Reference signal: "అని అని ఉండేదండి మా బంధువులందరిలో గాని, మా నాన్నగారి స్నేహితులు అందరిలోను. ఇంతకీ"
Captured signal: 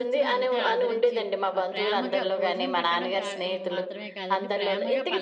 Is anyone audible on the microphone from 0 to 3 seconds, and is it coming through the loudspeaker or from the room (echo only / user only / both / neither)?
both